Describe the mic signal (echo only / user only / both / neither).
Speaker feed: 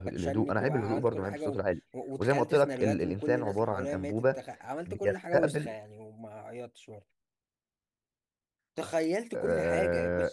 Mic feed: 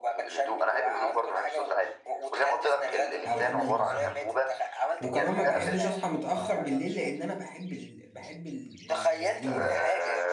both